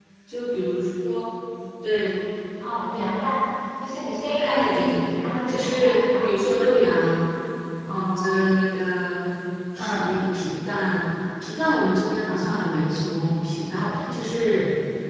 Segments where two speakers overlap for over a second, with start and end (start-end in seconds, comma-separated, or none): 4.4-6.3